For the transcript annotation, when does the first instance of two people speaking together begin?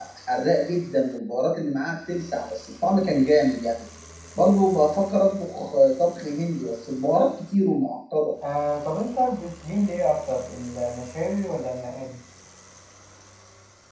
none

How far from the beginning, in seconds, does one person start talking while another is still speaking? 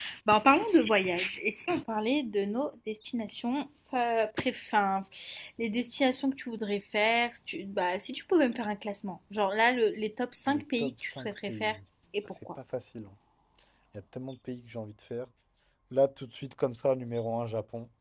10.5 s

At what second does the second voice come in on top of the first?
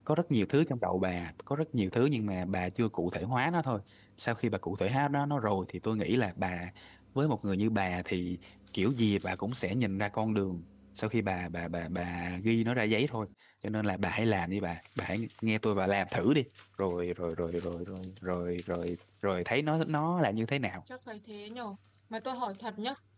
none

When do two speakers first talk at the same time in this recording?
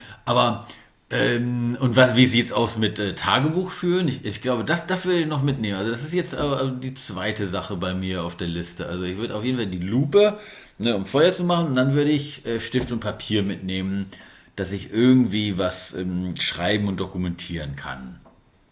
none

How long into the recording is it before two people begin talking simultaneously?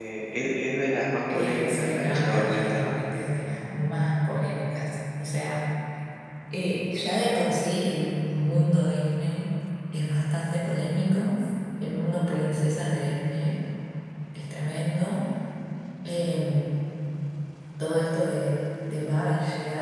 1.3 s

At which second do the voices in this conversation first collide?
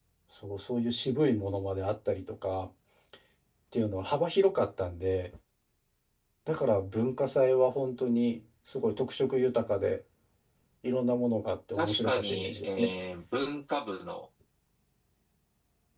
11.7 s

